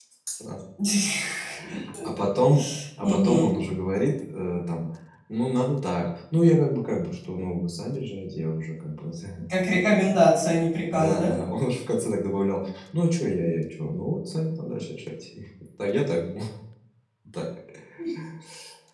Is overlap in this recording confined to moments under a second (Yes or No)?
Yes